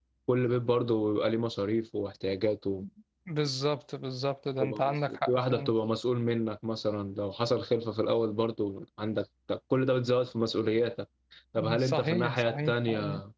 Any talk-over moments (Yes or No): Yes